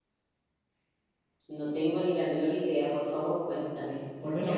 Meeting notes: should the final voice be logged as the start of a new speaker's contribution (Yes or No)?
Yes